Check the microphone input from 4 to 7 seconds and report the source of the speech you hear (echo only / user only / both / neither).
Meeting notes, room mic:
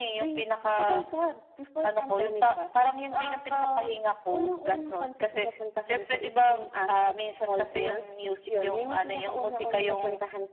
echo only